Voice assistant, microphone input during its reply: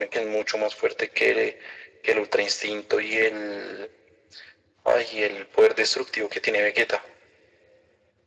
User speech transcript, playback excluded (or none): none